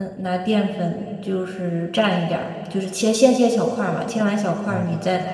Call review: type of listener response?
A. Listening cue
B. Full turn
A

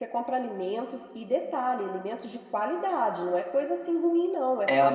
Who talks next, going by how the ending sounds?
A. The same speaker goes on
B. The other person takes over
B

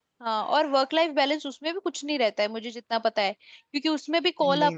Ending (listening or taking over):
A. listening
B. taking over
A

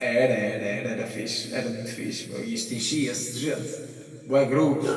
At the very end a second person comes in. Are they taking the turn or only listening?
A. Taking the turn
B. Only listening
A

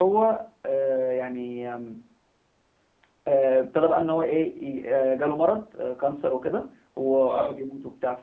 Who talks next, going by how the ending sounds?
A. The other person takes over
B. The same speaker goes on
B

